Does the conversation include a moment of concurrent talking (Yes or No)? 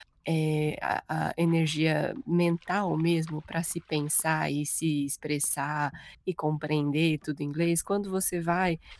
No